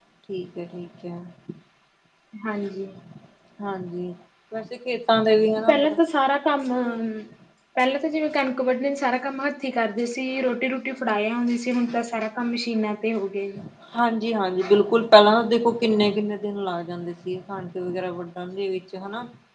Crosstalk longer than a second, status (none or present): none